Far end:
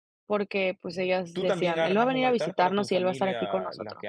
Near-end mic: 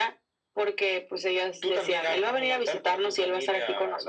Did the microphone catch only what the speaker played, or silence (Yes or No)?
Yes